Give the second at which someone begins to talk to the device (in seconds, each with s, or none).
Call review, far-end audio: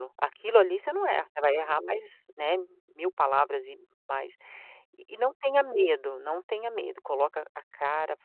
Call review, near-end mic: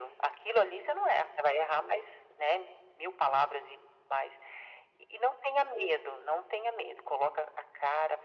none